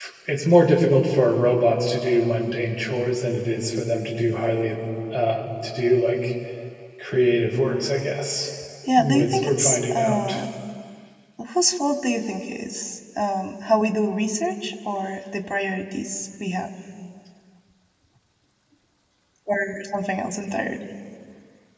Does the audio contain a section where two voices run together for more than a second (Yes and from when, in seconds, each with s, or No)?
Yes, from 9.0 s